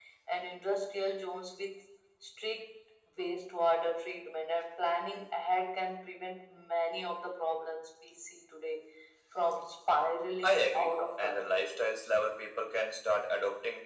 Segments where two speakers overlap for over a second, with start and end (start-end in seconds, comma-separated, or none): 10.4-11.7